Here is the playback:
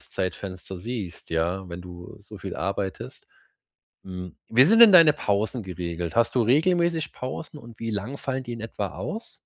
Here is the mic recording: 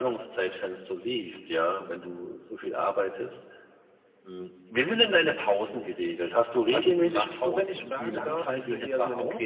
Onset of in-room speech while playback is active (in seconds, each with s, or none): 6.7 s